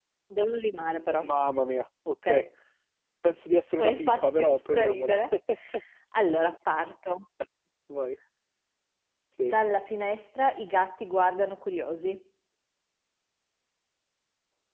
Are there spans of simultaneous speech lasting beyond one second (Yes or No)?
Yes